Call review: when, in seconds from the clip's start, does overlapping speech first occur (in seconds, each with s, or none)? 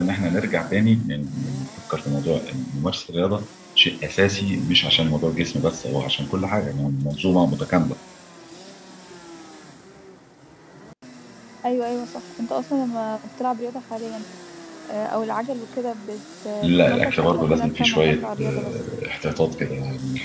16.6 s